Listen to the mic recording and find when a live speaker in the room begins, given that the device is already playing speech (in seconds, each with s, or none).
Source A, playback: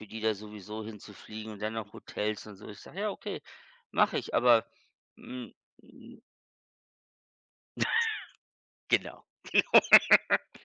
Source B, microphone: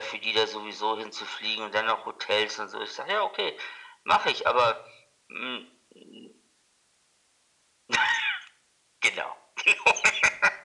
none